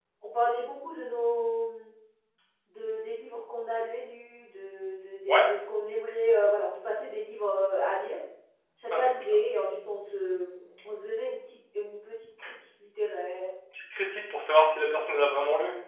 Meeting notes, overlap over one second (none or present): none